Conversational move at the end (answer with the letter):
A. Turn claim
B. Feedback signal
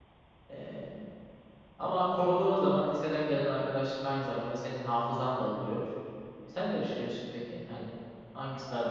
A